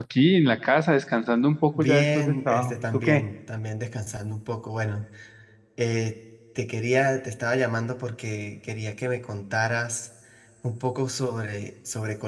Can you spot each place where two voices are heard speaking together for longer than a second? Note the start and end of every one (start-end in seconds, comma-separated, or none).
1.8-3.2